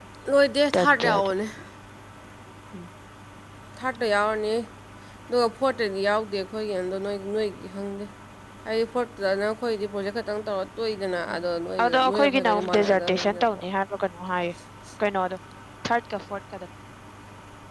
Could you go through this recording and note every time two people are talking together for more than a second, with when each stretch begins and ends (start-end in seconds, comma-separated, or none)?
11.8-13.6